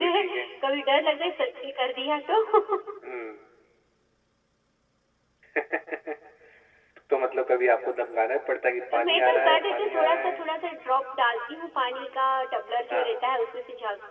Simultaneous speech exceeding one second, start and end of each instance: 9.0-10.4

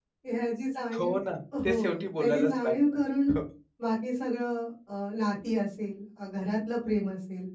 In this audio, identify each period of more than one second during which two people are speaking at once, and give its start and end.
1.6-3.0

